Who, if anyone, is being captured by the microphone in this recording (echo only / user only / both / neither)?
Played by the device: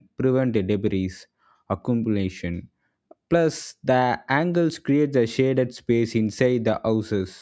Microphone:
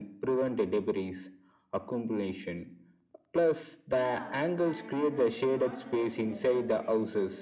both